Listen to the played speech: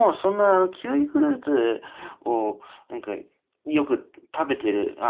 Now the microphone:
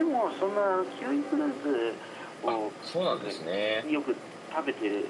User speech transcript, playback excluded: あ、そうなんですね。

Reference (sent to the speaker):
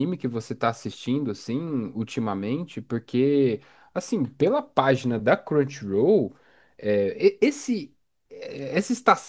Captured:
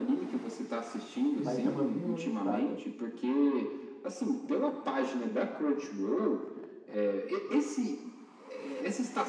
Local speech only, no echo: mas chama Vinland Saga.

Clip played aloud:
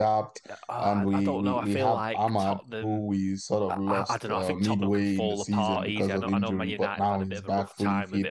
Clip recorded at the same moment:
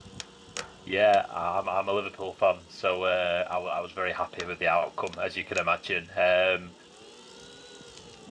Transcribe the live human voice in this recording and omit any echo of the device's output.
Yeah, I'm I'm a Liverpool fan, so uh, I, w- I was very happy with the outcome, as you can imagine. Um,

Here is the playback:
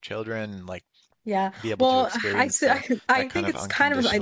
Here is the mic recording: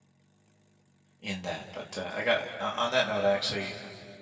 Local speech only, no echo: in that but uh, I got uh, on that note I actually

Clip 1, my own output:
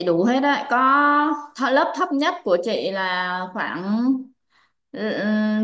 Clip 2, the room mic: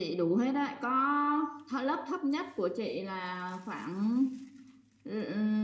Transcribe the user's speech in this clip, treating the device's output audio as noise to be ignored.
none

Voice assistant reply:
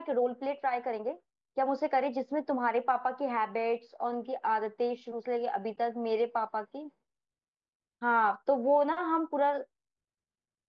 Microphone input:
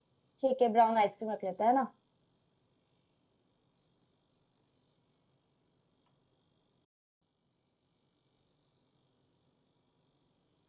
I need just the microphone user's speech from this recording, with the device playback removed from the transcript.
ठीक है ब्राउन आइसक्रीम रख लेते हैं ना

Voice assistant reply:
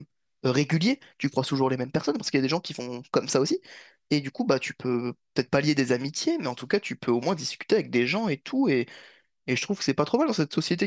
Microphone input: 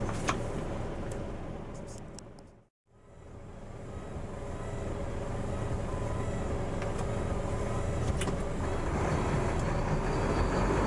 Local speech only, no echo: none

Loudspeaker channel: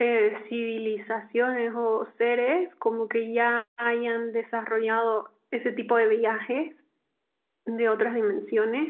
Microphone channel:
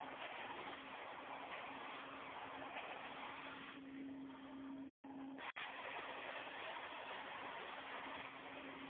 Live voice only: none

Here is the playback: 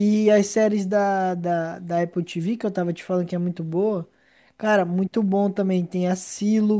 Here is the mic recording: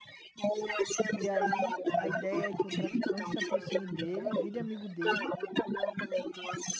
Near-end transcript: E aí a ideia é que o traficante se aproxime dele, vire amigo dele

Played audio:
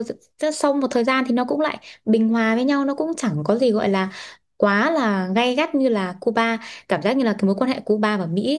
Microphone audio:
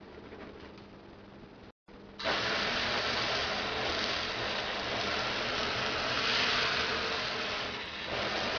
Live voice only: none

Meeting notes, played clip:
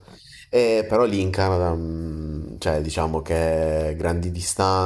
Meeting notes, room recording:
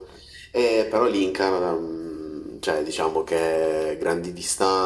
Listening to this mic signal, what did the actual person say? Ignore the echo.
none

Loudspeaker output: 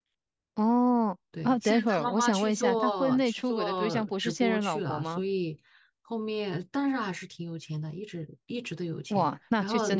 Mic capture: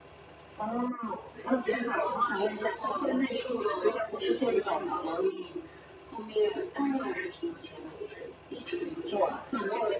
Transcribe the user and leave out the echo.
none

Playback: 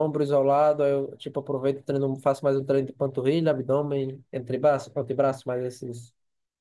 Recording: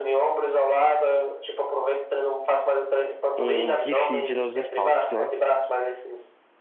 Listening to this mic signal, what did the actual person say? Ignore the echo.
um refeed nos estoques, né?

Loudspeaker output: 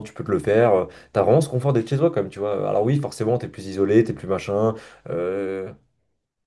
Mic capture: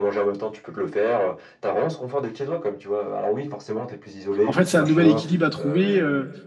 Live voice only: En fait, c'est un nouvel équilibre à trouver. Euh,

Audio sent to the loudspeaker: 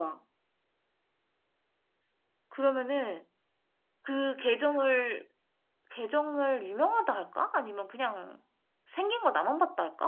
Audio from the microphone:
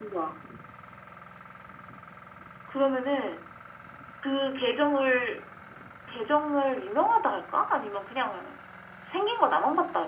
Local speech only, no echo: none

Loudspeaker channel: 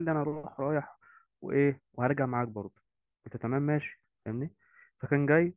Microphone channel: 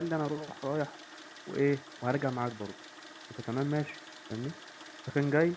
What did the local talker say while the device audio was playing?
none

